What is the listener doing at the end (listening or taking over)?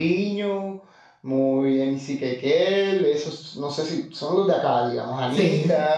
listening